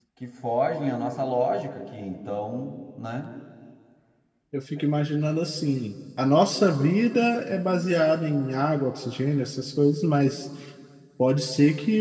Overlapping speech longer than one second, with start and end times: none

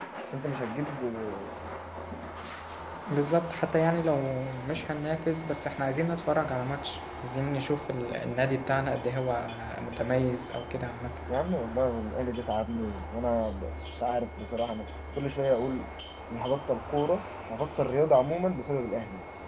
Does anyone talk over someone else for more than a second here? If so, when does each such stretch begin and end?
none

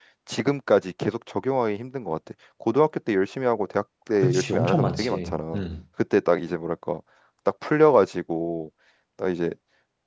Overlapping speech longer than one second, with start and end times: 4.2-5.5

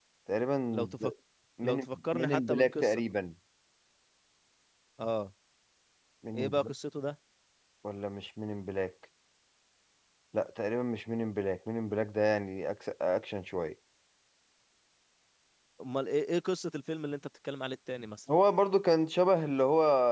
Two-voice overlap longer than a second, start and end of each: 1.6-3.1

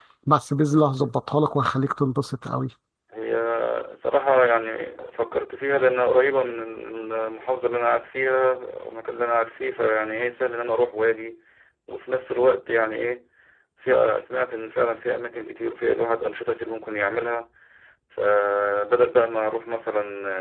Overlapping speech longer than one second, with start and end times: none

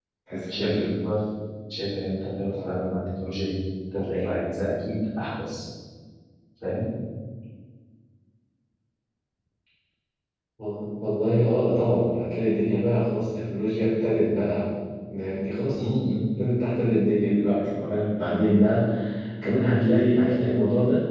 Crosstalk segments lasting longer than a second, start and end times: none

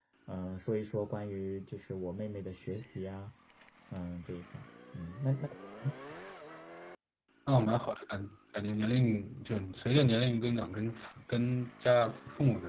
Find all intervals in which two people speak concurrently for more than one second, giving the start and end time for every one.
none

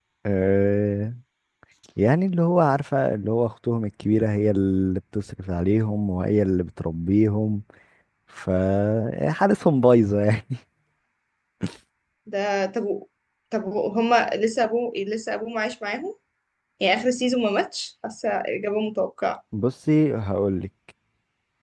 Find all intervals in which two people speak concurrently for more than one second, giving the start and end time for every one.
none

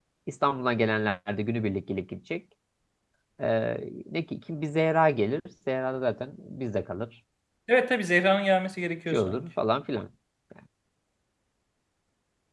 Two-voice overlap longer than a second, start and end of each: none

